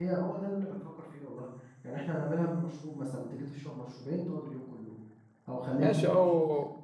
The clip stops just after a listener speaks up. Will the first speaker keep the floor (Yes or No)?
No